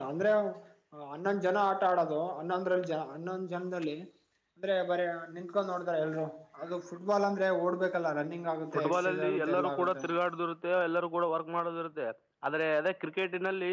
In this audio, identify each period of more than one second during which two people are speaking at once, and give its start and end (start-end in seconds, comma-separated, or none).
8.7-10.0